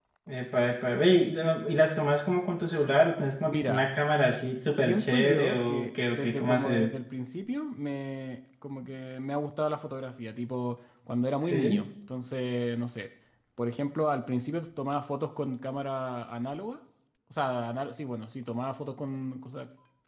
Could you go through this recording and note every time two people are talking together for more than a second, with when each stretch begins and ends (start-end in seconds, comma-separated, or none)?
4.8-6.9